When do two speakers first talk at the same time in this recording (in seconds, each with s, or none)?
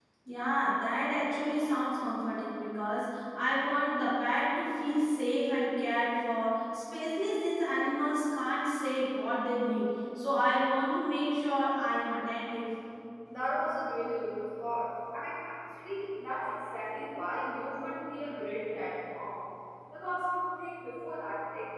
none